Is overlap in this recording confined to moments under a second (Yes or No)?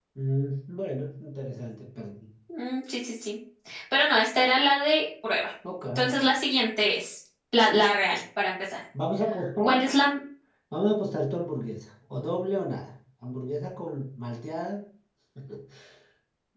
Yes